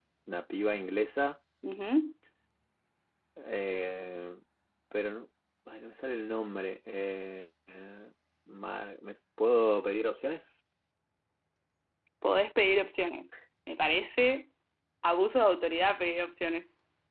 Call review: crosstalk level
none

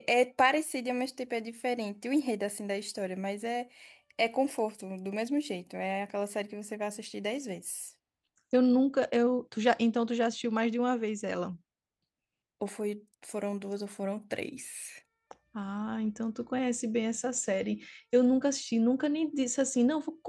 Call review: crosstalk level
none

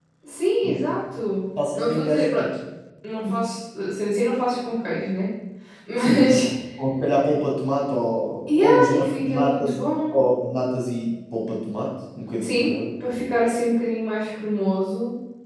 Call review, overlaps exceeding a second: present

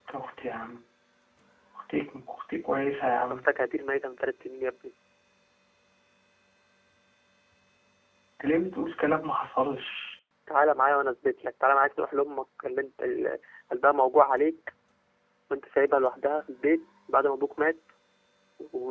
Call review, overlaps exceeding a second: none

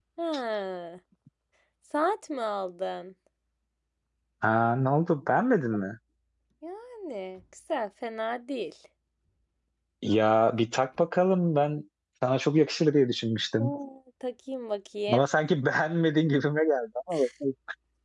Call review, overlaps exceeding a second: none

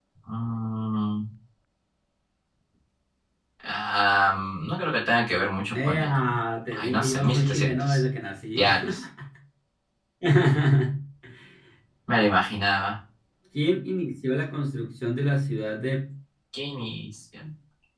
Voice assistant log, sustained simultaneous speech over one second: present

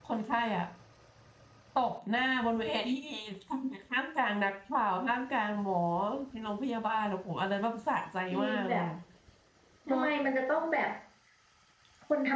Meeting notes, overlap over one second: none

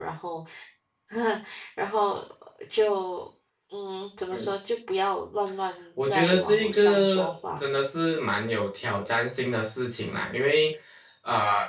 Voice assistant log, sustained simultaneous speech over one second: present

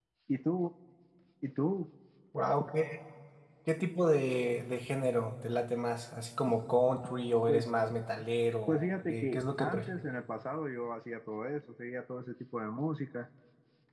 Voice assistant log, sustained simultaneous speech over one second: present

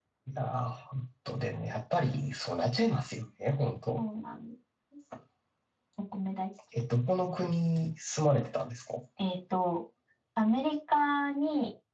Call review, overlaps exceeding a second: none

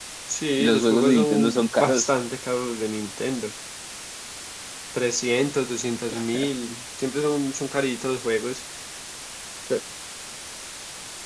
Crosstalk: present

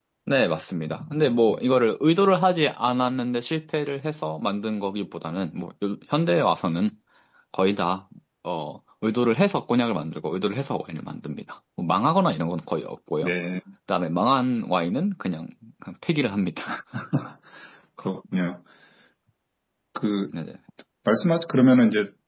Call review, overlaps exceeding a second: none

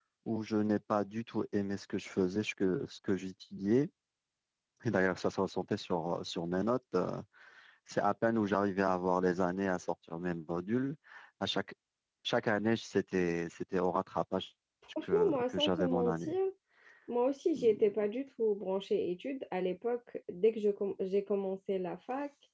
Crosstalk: present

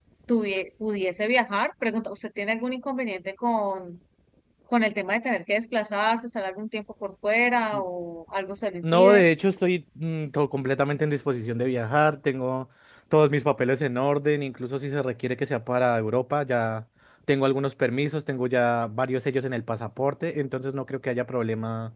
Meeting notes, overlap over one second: none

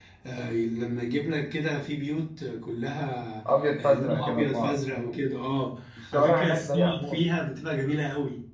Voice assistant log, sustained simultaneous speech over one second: present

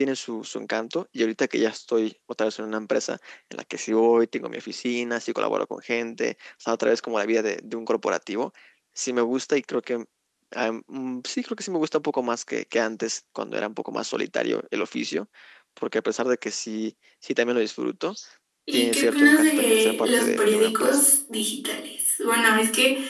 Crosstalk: present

